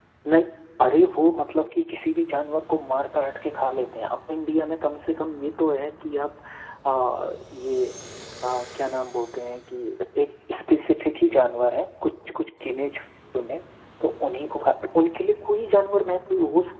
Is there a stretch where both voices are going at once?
No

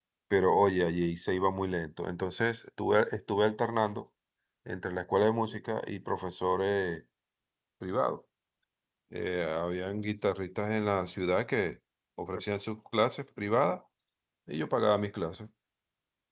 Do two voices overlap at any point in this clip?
No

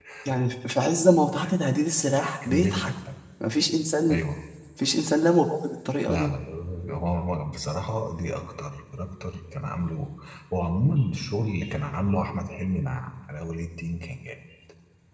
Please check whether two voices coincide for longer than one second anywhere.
No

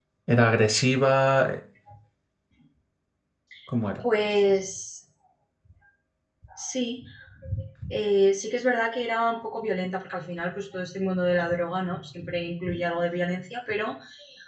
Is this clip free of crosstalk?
Yes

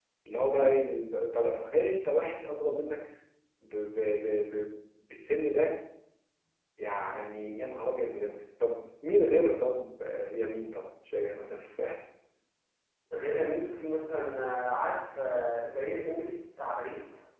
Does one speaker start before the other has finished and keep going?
No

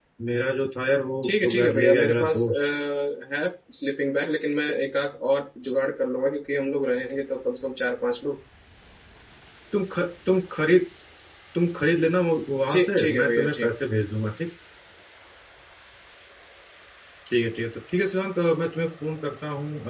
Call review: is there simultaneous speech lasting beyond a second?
Yes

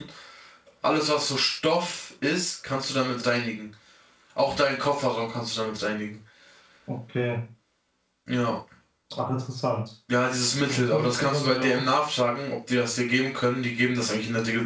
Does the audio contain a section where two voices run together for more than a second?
Yes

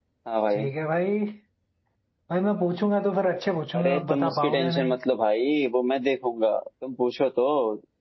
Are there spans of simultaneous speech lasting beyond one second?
Yes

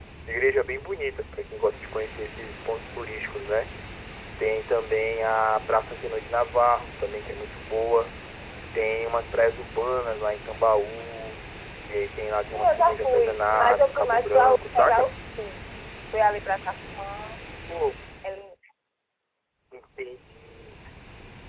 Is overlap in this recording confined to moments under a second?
No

